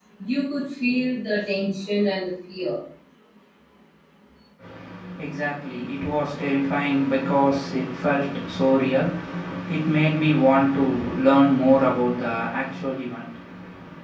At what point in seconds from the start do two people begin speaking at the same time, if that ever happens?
none

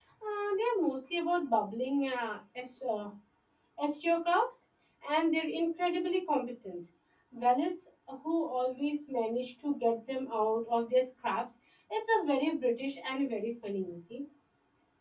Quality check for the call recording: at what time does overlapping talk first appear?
none

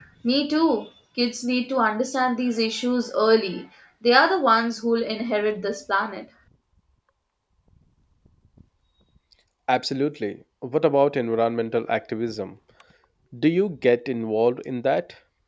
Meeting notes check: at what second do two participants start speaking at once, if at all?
none

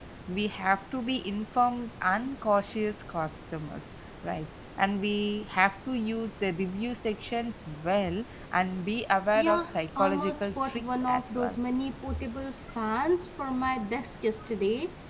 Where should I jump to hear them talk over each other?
9 s

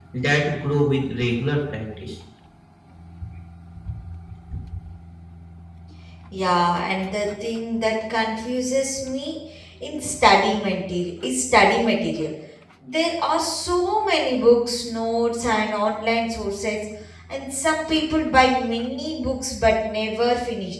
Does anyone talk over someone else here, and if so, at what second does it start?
none

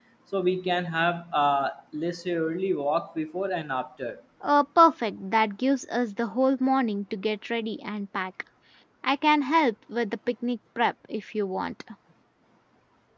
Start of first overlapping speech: none

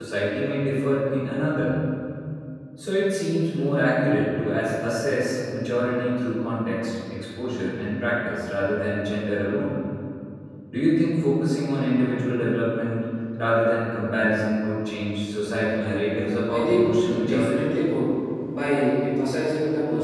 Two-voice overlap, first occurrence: 16 s

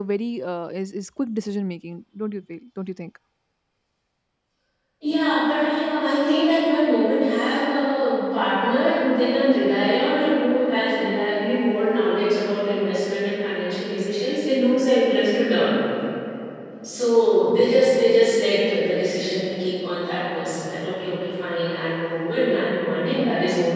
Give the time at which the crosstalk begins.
none

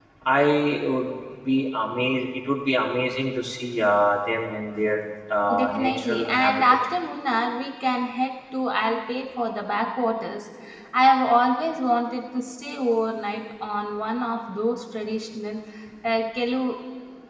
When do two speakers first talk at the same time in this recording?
6 s

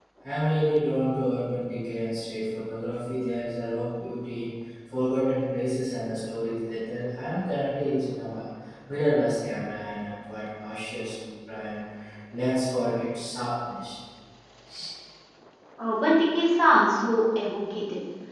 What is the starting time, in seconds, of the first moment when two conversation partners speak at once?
none

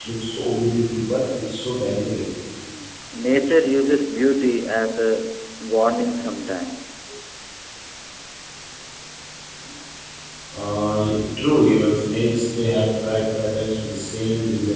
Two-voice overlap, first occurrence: none

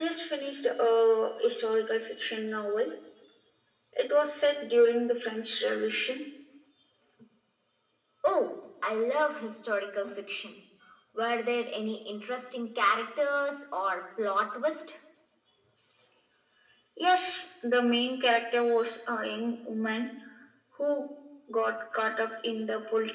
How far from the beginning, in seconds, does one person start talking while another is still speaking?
none

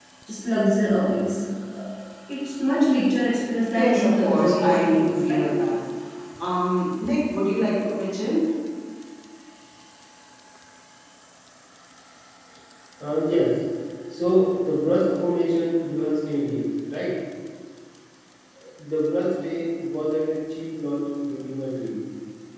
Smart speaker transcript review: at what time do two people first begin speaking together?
4 s

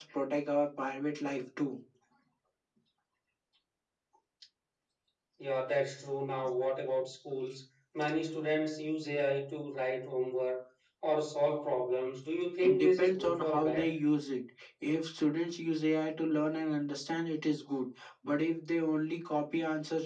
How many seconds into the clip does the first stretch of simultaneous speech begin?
13 s

